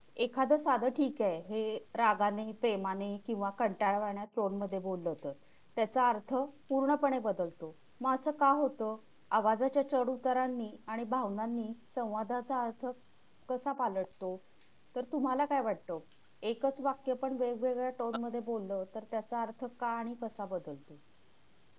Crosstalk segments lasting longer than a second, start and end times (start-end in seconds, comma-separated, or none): none